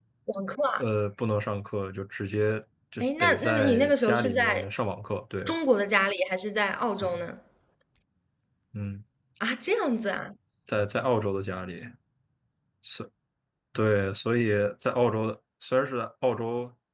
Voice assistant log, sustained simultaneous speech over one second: present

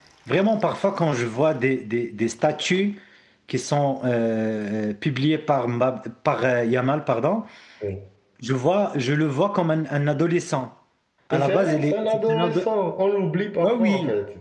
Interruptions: present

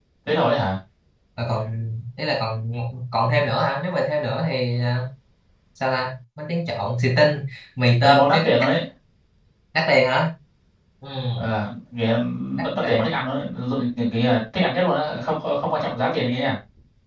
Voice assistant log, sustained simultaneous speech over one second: none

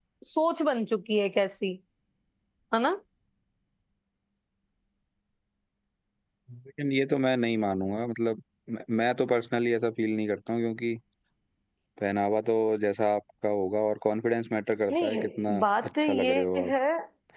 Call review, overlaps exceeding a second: present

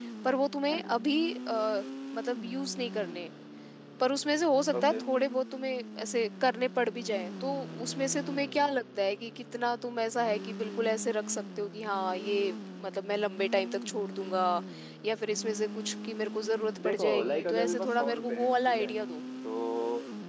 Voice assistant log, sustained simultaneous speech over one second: present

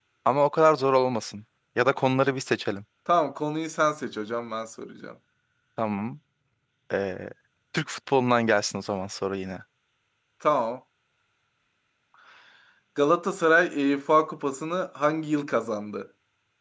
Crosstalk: none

